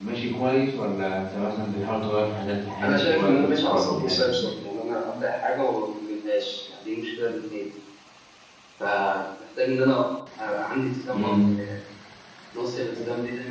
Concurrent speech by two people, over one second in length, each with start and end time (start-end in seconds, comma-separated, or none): 2.8-4.3